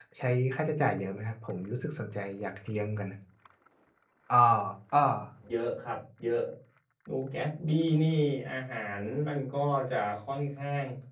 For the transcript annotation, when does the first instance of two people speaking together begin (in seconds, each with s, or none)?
none